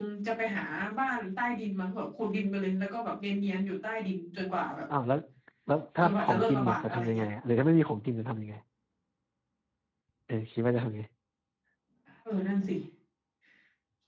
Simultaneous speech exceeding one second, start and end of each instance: 6.0-7.3

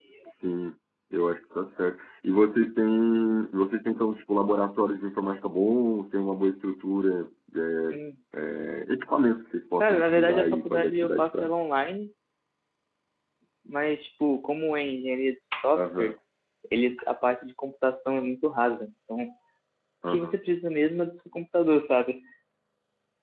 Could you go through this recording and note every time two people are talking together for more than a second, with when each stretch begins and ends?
9.8-11.5

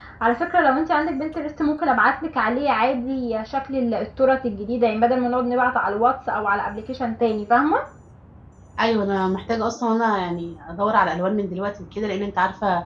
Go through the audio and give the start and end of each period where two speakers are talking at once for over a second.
none

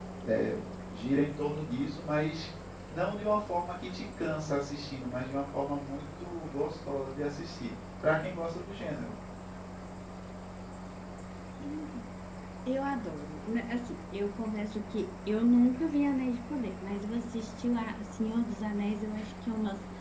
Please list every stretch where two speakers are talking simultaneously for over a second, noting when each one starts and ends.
none

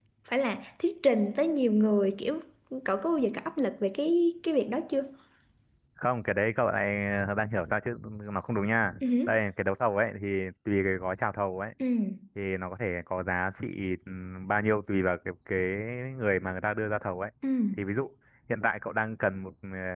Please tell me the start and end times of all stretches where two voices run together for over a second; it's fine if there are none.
none

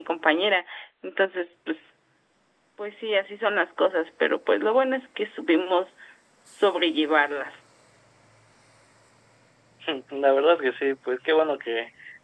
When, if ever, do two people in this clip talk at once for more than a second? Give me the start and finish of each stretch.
none

